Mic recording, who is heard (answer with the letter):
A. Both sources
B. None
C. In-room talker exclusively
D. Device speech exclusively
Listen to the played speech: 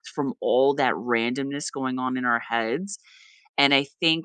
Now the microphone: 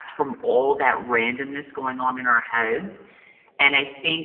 D